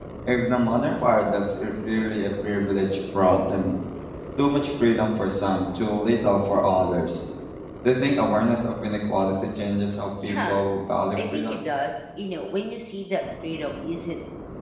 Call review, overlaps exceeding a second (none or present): none